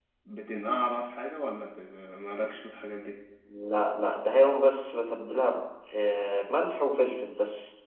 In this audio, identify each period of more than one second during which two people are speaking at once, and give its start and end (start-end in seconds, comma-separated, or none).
none